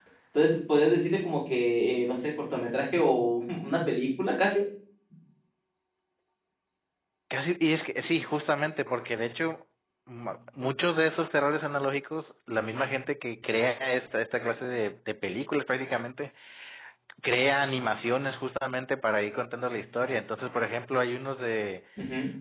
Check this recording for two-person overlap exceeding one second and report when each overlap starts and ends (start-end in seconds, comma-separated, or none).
none